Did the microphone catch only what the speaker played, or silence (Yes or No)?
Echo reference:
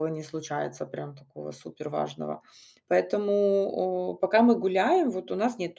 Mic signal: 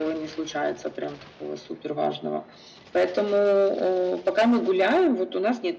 Yes